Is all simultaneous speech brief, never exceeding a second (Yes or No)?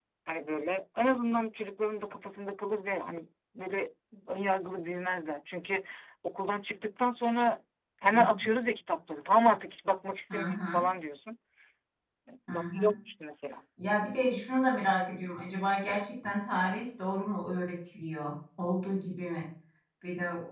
Yes